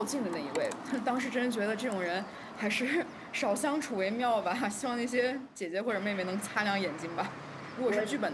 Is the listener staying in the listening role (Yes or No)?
Yes